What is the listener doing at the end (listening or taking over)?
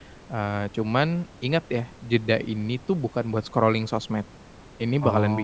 listening